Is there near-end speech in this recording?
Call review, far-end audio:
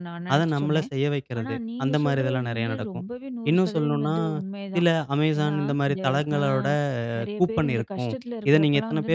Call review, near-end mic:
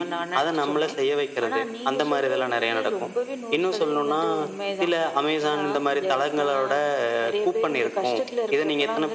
No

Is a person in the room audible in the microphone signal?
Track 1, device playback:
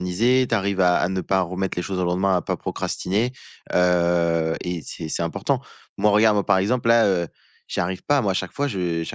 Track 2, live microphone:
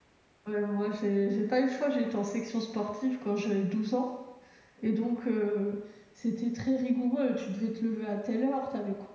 Yes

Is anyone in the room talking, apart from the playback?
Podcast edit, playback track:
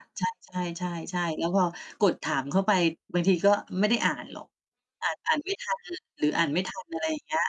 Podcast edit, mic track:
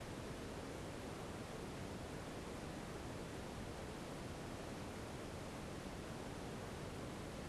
No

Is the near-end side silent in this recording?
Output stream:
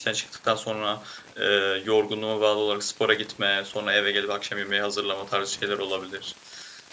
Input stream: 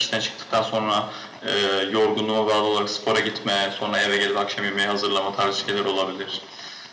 Yes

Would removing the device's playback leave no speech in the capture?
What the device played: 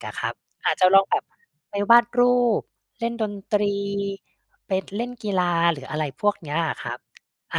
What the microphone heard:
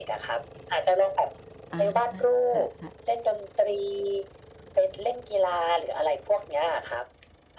No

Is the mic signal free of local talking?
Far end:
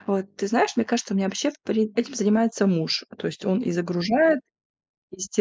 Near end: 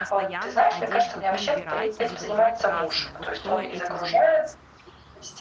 No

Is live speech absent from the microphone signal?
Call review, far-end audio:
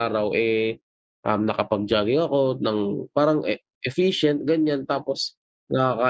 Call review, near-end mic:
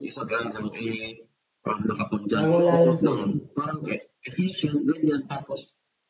No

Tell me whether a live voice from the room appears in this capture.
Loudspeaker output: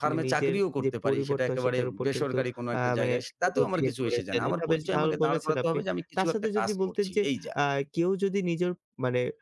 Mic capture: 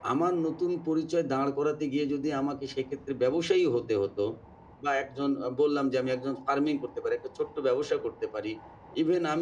Yes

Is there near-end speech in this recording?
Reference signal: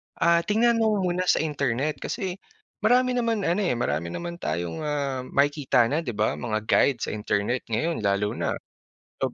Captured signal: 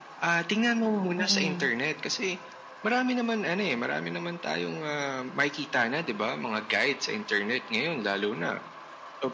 Yes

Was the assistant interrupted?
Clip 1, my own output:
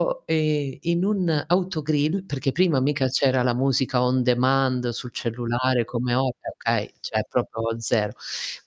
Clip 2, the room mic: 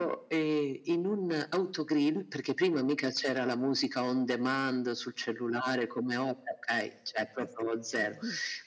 Yes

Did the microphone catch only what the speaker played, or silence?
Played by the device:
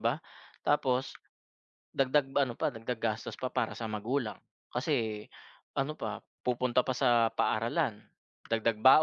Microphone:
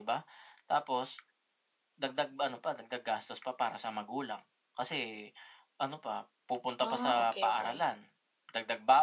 No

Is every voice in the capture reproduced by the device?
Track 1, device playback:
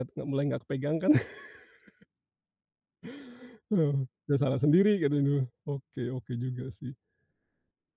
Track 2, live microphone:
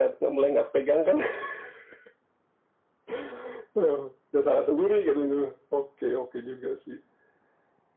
Yes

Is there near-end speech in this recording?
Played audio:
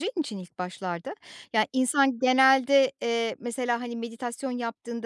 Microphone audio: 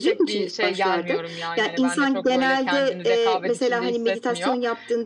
Yes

